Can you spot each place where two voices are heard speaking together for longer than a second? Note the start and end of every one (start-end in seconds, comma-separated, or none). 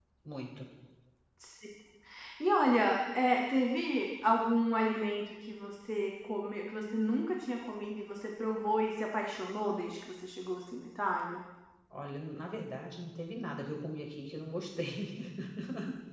none